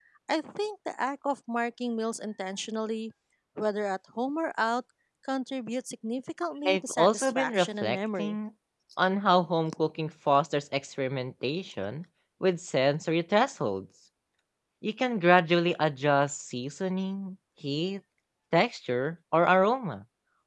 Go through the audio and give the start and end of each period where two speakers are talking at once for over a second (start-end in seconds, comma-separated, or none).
6.7-8.4